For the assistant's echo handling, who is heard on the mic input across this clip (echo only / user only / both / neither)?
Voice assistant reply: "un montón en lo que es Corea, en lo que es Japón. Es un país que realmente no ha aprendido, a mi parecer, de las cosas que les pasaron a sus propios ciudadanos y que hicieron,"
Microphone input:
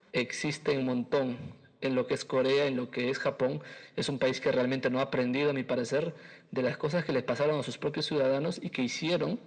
echo only